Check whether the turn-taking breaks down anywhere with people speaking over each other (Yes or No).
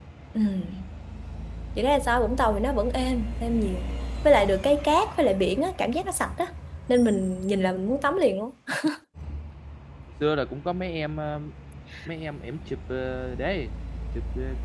No